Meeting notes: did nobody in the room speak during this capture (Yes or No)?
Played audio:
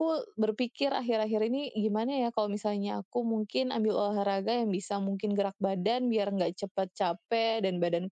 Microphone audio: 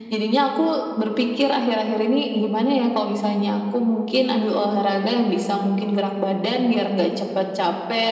Yes